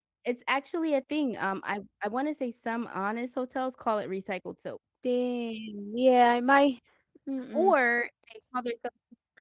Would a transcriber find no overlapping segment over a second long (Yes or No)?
Yes